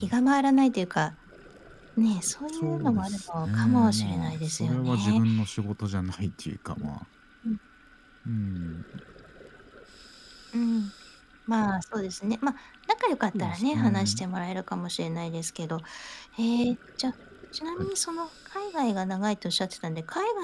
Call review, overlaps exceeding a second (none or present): present